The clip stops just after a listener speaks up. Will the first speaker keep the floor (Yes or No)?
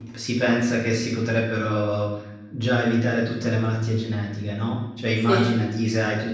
Yes